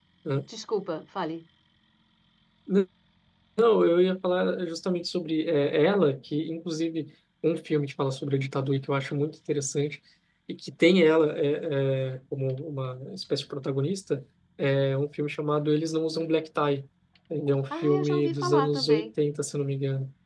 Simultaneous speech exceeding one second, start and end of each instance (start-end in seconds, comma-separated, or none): 17.8-19.1